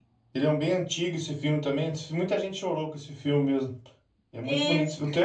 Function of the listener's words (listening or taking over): taking over